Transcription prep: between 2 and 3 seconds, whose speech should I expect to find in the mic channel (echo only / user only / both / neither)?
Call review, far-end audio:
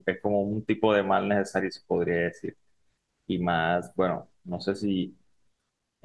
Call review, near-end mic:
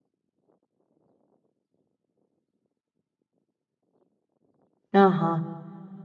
neither